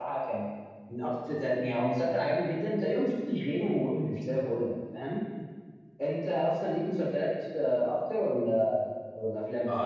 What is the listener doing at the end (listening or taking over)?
taking over